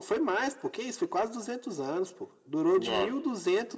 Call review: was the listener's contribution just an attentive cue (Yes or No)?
Yes